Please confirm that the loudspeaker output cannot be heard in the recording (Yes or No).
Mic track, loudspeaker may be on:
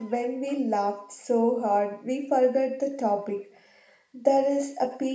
Yes